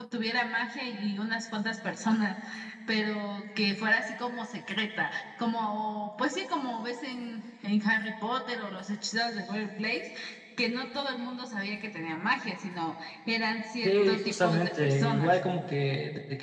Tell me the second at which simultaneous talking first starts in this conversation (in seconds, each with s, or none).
13.8 s